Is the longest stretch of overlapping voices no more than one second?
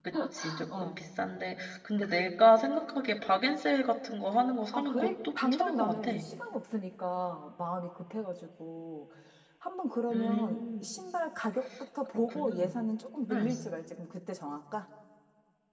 No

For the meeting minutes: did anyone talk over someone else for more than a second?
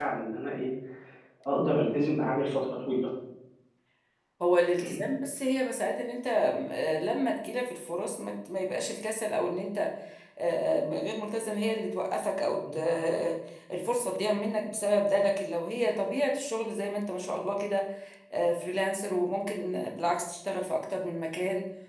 No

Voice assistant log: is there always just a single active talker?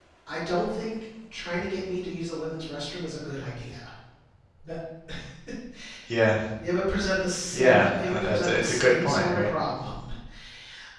No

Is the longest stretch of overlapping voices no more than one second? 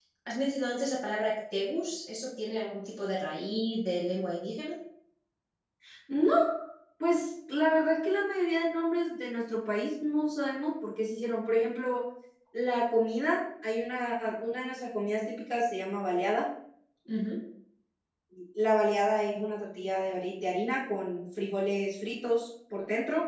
Yes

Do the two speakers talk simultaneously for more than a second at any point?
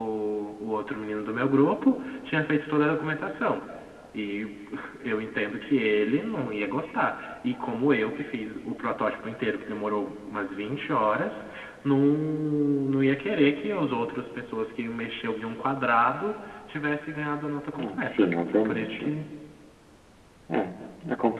Yes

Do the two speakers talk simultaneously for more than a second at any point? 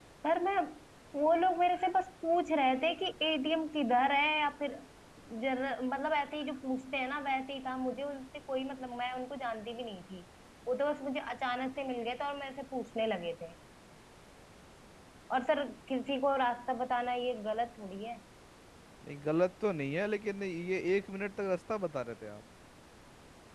No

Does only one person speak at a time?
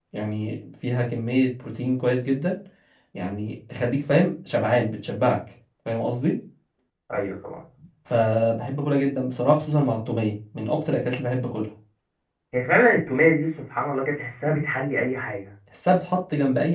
Yes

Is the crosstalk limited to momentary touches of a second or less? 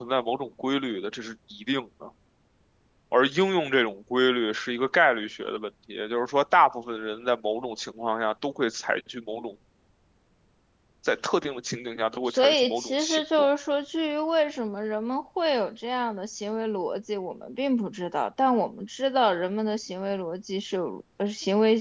No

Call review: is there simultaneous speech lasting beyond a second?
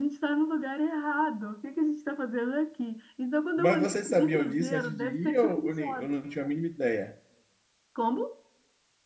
Yes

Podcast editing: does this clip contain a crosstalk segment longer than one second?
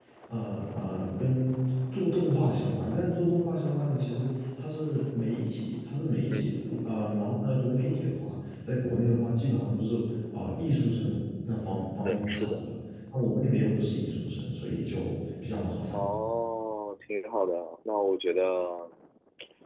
No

